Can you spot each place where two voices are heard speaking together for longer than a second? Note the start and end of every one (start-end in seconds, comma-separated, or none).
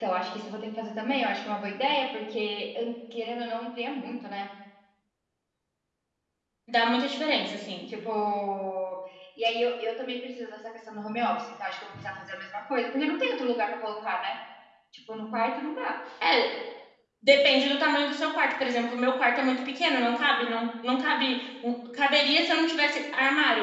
none